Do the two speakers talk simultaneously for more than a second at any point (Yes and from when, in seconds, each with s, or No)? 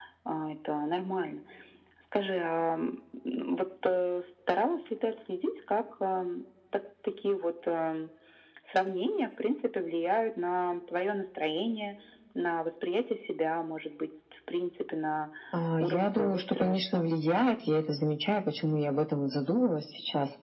Yes, from 15.8 s